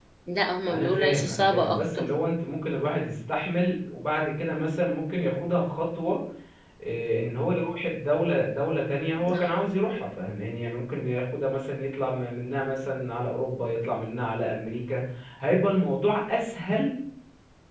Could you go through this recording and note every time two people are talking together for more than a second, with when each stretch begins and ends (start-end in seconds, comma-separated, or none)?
0.7-2.1